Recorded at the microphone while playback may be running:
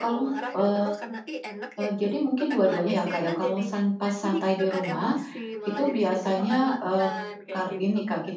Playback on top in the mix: No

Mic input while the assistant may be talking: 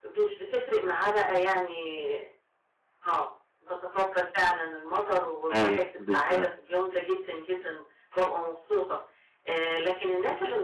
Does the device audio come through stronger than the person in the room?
No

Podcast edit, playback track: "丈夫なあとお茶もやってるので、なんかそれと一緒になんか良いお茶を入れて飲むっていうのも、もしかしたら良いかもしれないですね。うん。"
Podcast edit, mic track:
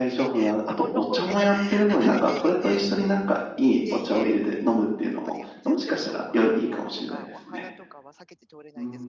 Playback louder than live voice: Yes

